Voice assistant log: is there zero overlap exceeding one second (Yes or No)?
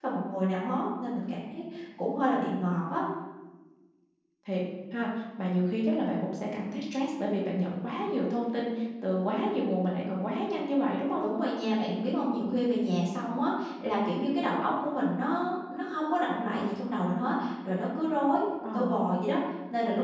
Yes